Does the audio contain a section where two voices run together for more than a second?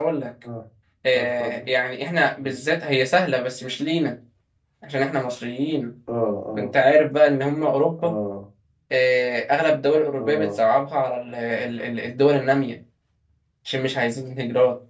No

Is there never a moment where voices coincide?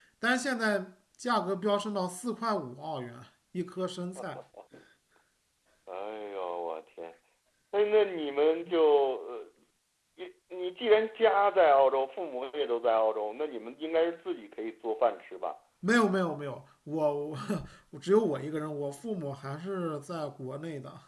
Yes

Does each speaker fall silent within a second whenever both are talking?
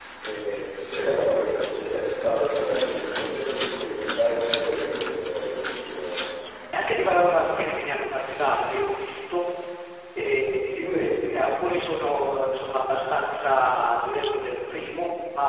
Yes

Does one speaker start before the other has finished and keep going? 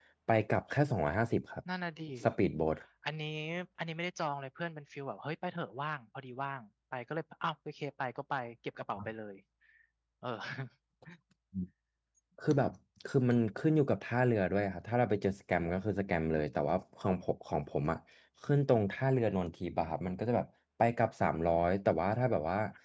No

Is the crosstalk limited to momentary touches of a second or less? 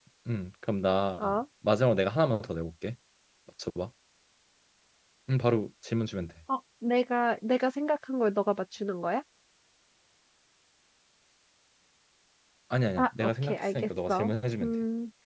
No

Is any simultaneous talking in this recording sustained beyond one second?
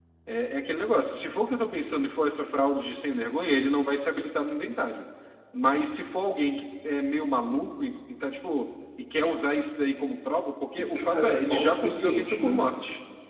Yes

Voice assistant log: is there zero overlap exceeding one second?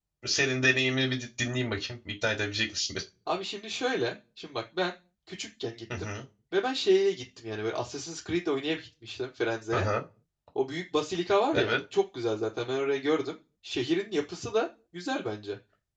Yes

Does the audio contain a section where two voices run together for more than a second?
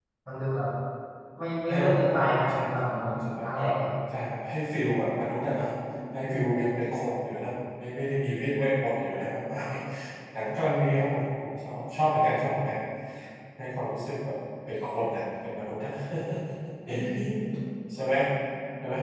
Yes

